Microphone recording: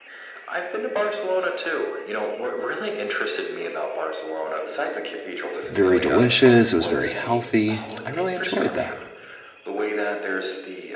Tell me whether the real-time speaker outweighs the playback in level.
Yes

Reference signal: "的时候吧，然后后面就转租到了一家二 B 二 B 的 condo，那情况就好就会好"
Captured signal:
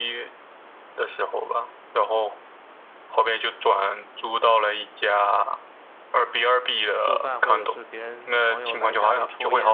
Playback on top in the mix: Yes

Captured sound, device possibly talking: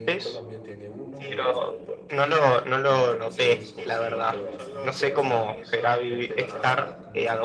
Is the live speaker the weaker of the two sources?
No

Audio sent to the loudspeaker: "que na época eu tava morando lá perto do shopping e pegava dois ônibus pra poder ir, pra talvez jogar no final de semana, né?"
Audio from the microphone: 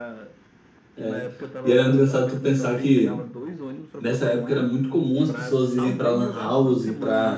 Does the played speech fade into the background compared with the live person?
Yes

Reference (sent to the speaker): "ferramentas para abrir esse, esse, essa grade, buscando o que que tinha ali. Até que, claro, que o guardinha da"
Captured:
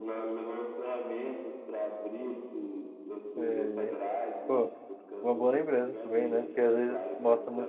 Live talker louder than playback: Yes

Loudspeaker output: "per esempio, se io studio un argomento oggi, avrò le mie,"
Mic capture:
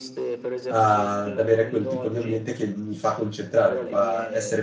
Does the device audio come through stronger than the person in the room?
No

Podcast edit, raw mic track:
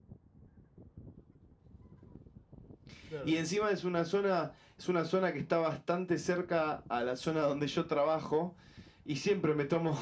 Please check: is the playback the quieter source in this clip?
No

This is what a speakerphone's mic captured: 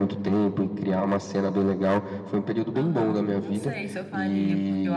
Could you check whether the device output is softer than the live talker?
No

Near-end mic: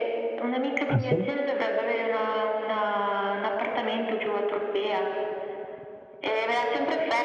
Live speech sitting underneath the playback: No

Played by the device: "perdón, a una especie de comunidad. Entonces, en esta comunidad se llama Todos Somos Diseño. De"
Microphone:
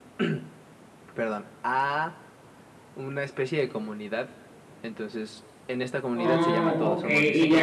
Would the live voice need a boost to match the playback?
No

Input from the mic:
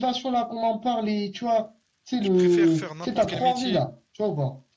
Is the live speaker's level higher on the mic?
No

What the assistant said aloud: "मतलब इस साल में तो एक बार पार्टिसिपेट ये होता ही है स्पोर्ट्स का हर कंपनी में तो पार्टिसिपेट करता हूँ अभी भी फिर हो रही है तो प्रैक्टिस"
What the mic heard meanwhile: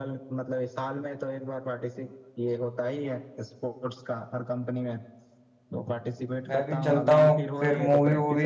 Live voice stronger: Yes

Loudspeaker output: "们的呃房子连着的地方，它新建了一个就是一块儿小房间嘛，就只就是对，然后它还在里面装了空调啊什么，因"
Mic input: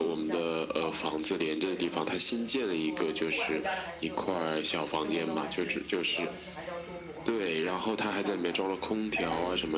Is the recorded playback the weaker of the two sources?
No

